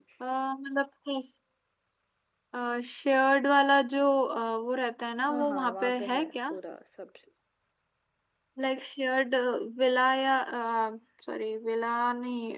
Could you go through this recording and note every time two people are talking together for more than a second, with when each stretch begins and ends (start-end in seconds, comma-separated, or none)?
5.3-6.5